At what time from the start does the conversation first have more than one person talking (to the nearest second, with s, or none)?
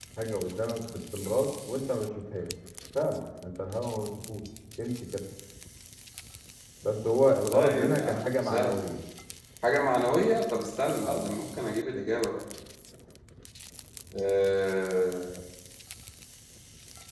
8 s